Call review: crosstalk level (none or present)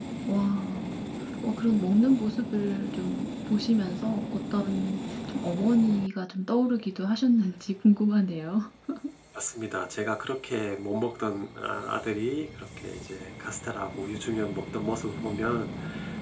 none